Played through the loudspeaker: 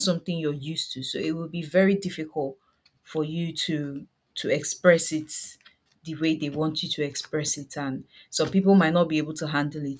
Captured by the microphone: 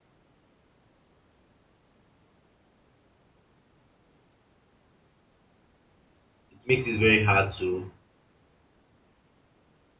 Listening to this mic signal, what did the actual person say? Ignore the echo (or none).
it makes it very hard to